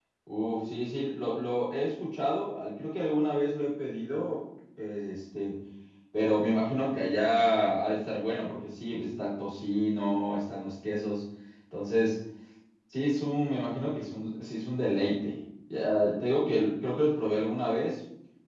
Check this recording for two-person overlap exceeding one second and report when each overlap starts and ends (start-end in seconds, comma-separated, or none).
none